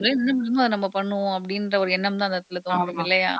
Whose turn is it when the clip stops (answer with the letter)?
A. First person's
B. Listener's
B